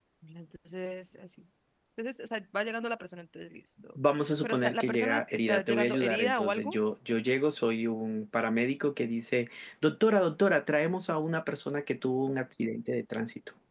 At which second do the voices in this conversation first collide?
4.4 s

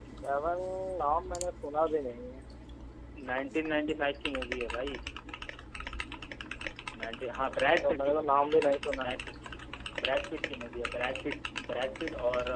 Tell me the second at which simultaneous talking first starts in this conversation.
7.8 s

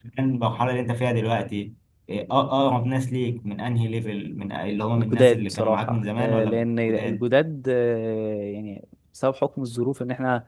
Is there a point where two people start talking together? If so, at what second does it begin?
5.0 s

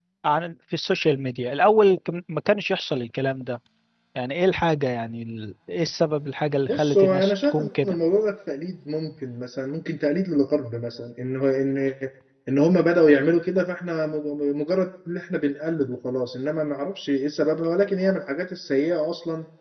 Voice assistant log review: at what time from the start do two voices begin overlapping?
6.7 s

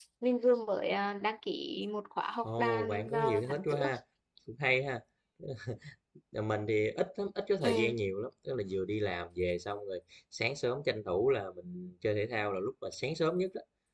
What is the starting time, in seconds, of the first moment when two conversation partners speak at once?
2.4 s

